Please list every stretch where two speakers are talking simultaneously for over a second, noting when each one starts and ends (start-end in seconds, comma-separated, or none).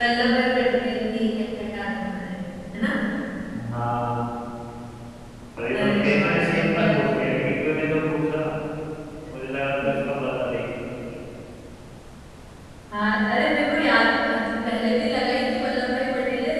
5.7-7.0